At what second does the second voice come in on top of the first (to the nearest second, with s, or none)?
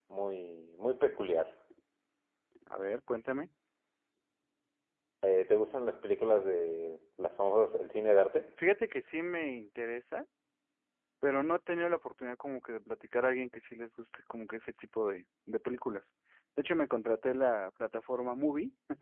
none